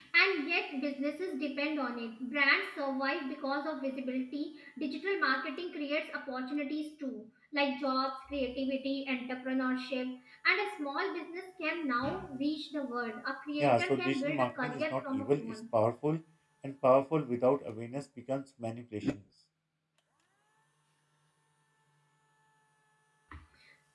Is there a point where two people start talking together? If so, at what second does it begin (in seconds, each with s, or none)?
13.6 s